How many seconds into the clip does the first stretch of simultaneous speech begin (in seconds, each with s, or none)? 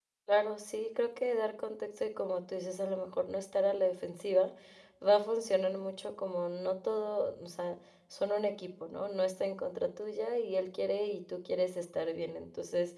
none